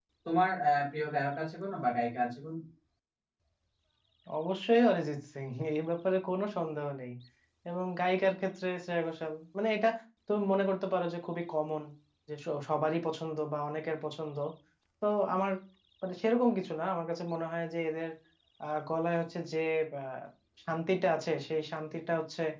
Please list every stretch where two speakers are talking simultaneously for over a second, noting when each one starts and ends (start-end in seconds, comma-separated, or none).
none